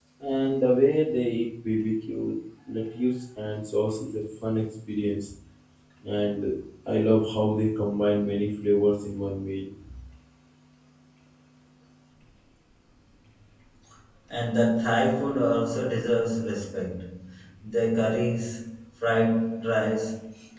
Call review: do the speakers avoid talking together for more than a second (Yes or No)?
Yes